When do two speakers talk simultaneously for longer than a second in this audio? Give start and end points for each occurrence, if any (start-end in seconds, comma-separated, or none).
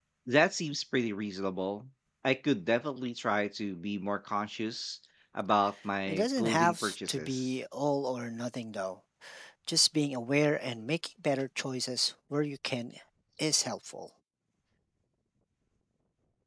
6.1-7.5